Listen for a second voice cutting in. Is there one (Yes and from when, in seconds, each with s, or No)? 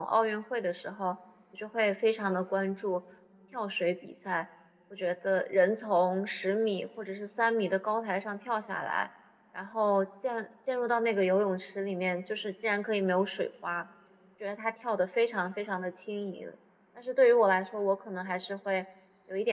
No